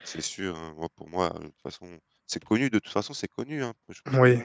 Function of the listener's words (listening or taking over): listening